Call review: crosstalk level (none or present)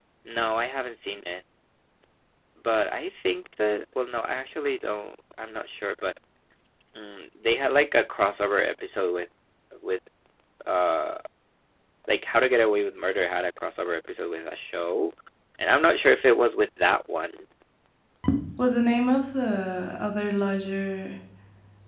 none